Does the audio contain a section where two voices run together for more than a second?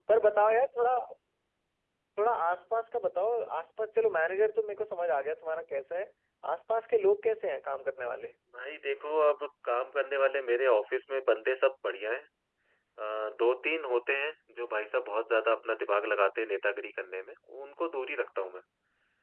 No

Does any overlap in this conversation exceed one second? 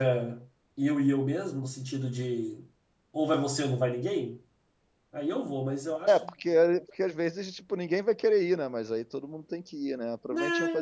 No

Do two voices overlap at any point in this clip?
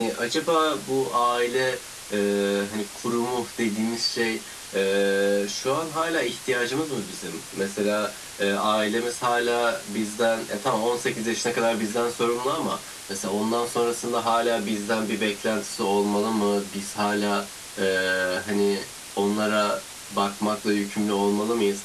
No

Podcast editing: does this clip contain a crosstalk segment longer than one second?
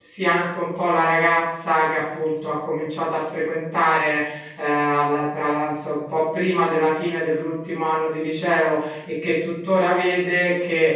No

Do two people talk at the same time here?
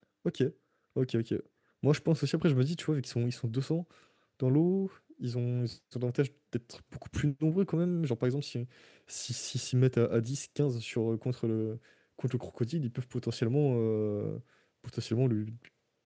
No

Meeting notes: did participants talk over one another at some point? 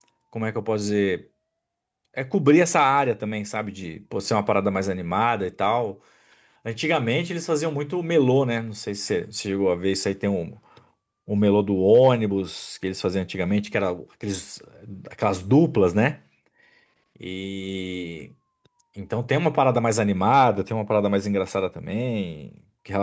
No

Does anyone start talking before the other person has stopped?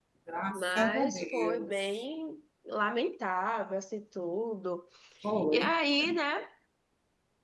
Yes, from 0.5 s

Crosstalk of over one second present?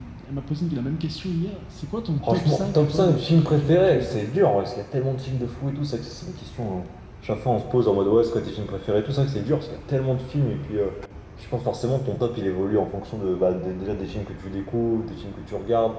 Yes, from 2.2 s

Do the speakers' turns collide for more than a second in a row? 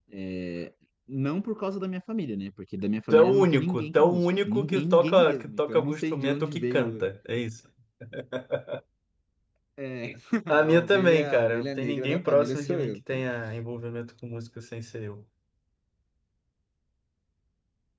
Yes, from 3.1 s

